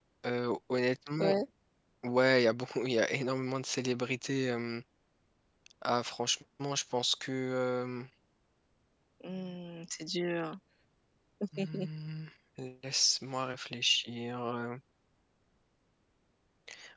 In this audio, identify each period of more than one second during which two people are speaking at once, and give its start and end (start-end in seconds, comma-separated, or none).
none